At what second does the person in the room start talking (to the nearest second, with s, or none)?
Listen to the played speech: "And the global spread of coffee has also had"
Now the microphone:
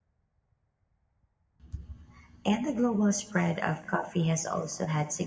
none